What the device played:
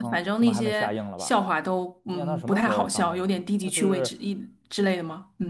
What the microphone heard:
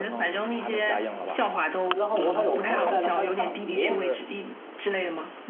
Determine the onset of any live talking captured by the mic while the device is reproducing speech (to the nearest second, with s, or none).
2 s